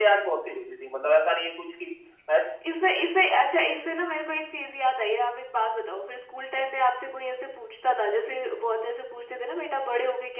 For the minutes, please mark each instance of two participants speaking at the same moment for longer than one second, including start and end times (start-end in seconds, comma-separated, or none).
none